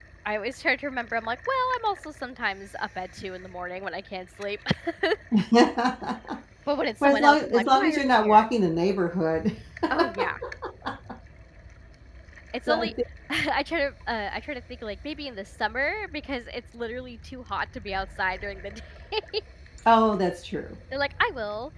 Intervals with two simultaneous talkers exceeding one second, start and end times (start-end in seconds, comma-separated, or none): 7.0-8.5